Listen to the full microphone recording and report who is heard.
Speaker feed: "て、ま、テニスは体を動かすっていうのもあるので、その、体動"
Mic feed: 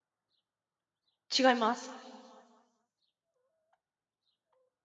user only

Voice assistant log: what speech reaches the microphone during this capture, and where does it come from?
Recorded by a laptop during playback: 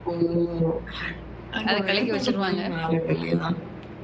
both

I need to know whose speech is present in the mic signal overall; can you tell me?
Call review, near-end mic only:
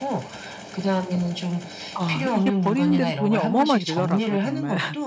both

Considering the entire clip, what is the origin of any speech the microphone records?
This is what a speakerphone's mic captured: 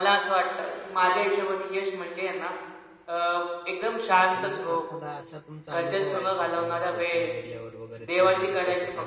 both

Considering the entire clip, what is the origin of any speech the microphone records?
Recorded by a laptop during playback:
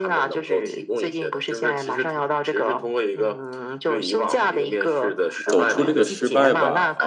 both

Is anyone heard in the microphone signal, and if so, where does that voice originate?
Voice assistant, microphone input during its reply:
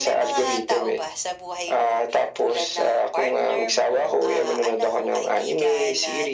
echo only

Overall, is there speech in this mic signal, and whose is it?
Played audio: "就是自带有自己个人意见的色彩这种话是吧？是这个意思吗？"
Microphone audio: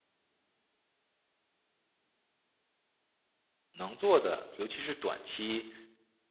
user only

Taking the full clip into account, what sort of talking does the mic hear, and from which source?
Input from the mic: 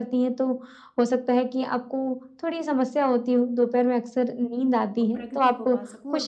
both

